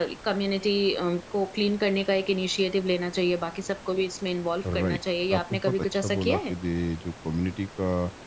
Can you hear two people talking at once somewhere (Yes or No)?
Yes